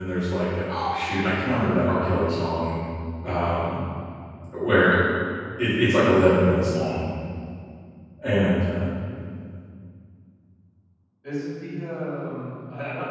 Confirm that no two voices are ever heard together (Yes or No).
Yes